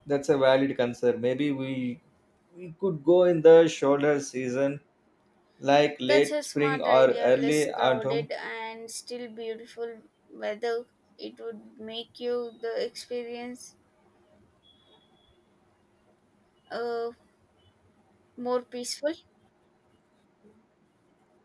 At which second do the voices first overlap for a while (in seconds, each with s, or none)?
6.0 s